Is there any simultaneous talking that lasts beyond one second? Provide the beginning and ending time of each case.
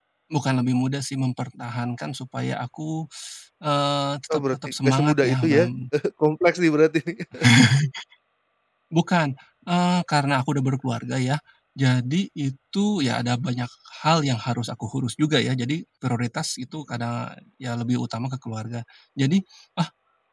4.3-5.7

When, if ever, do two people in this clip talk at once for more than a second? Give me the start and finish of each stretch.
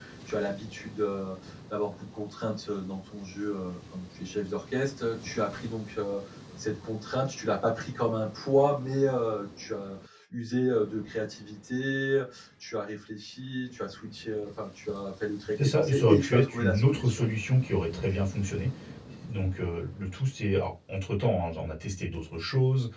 15.6-17.3

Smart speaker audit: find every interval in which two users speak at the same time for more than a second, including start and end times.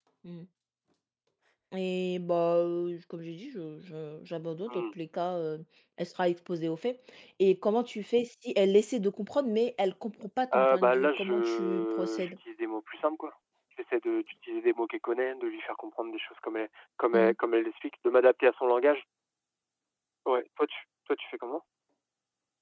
10.5-12.3

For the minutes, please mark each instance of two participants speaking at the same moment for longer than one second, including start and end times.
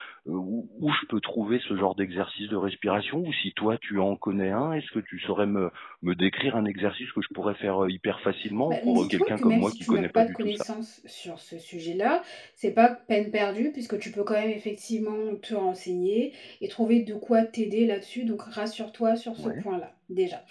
8.7-10.6

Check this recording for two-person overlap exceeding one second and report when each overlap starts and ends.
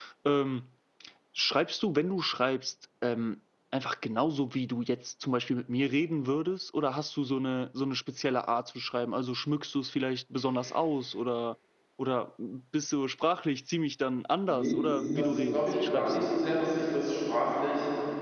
14.5-16.2

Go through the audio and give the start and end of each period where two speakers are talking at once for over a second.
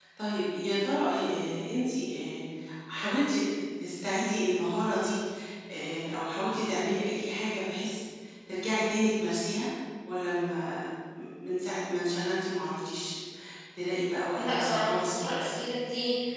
14.4-15.6

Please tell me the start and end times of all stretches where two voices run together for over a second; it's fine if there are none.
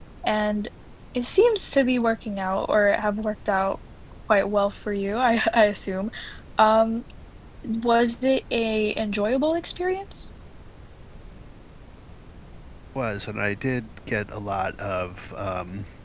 none

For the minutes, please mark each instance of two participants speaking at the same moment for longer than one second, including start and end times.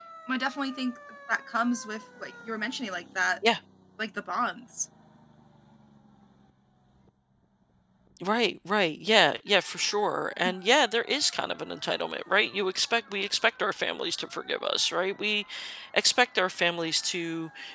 none

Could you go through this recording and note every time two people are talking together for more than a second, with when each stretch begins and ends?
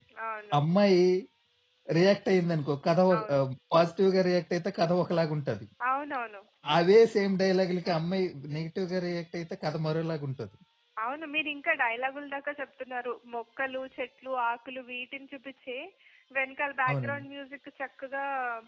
none

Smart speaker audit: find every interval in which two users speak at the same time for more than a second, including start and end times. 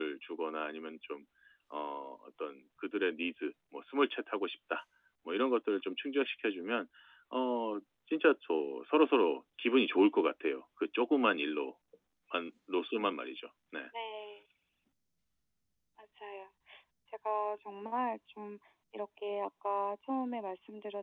none

